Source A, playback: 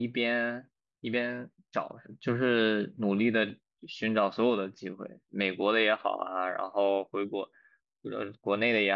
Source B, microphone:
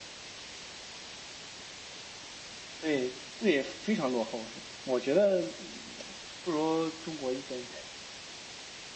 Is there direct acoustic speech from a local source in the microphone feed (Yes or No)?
Yes